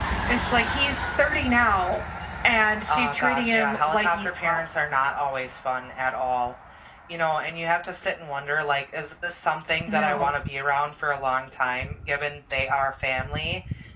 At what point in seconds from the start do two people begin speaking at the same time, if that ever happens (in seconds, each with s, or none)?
2.9 s